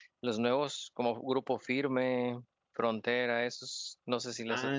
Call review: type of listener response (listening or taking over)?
taking over